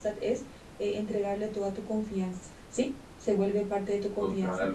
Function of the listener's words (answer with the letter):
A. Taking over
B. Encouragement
A